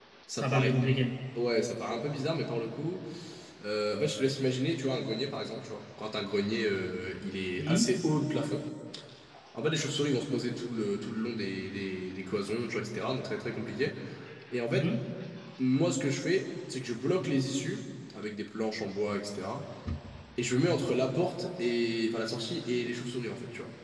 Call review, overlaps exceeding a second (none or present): none